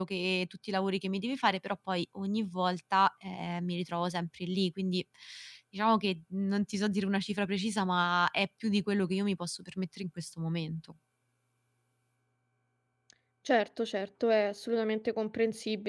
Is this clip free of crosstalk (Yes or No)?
Yes